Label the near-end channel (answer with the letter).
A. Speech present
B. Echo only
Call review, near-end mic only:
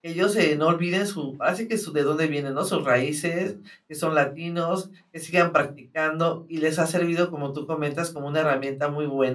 A